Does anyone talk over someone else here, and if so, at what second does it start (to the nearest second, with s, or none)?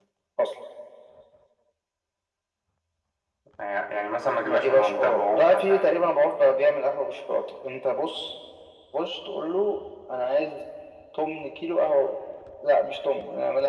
4 s